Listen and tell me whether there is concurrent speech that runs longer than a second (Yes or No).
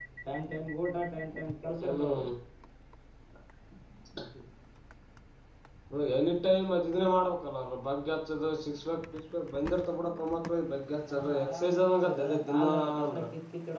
Yes